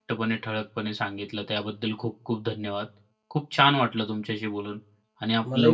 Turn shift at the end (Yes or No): Yes